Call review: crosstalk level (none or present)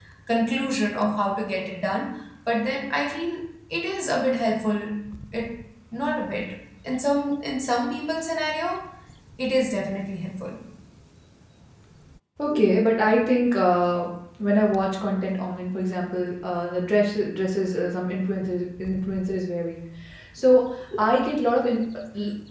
none